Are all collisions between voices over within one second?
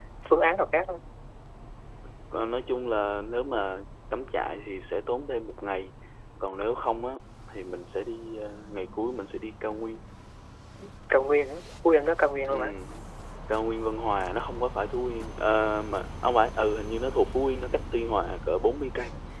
Yes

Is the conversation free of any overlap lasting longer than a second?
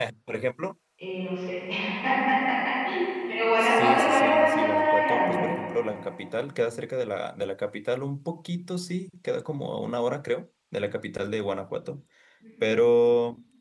No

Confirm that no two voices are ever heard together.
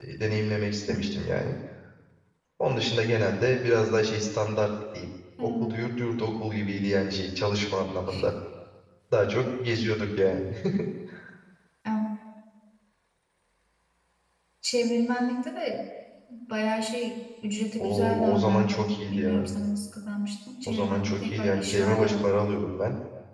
No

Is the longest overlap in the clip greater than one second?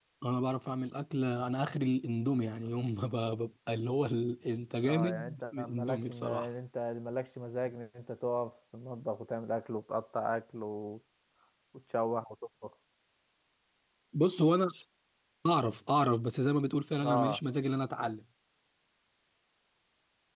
Yes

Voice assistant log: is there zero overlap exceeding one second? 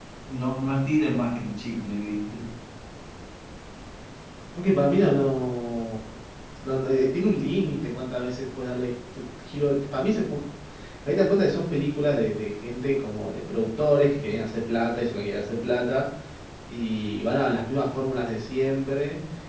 Yes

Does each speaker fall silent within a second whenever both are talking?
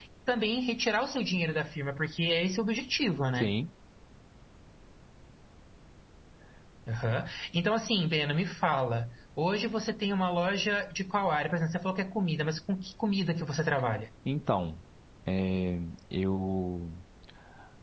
Yes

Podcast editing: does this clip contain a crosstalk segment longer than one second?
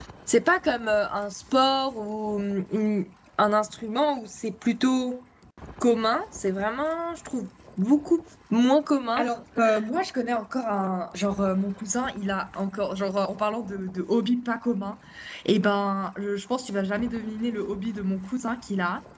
No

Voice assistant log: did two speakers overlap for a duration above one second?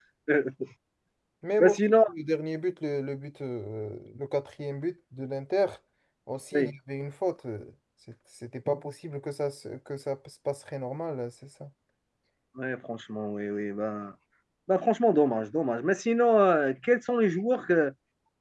No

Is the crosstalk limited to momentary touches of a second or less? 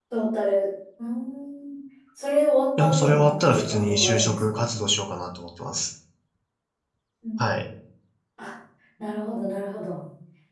No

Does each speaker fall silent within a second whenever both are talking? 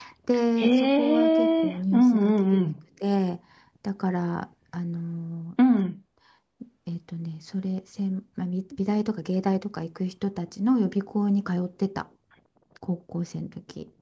No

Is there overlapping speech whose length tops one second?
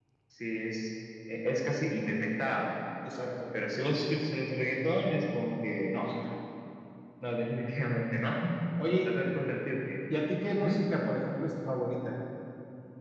No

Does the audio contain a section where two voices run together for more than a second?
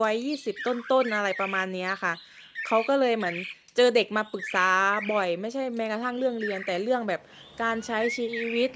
No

